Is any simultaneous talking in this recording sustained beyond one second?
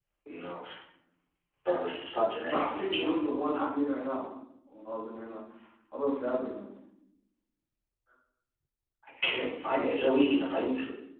Yes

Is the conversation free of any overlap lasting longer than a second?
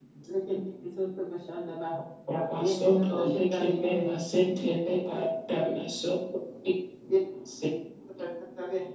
No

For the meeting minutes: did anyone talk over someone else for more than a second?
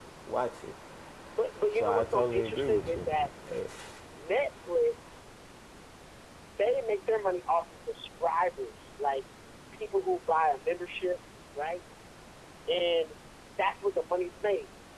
Yes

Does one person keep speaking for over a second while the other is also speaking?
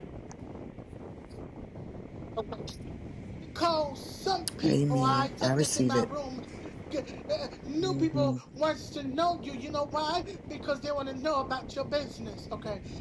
Yes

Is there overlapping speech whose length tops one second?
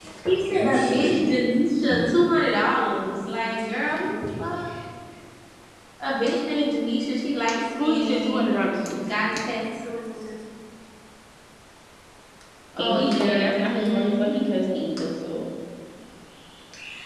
Yes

